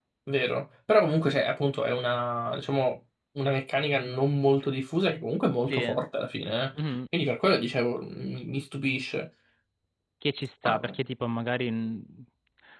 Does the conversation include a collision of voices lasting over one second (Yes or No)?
No